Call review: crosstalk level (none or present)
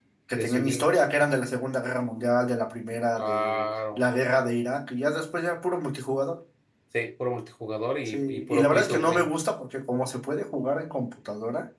present